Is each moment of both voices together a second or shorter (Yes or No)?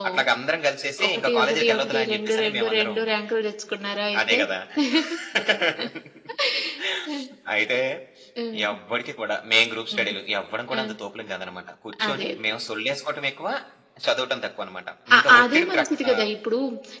No